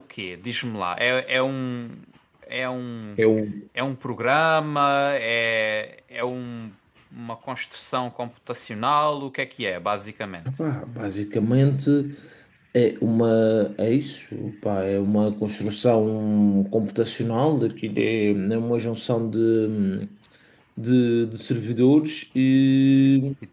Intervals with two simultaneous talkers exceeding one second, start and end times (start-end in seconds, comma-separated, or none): none